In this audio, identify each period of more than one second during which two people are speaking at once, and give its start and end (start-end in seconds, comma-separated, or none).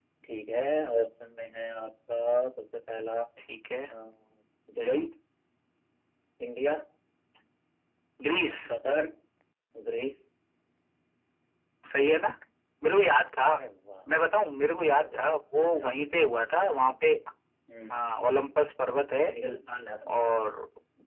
15.0-16.9